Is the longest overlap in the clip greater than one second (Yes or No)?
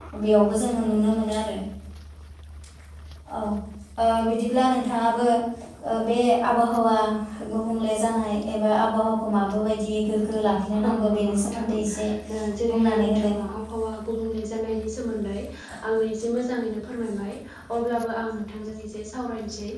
Yes